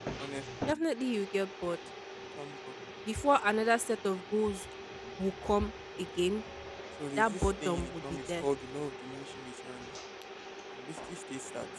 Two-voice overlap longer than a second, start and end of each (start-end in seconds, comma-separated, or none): 7.2-8.4